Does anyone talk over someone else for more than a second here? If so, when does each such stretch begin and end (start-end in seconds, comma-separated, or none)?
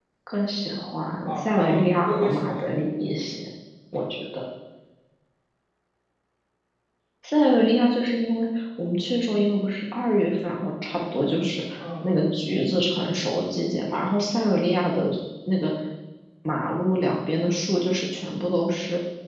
1.2-2.7